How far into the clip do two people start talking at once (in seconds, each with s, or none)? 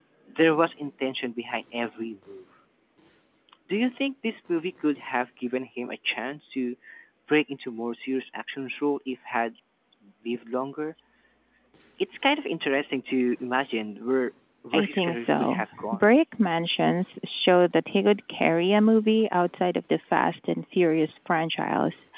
14.7 s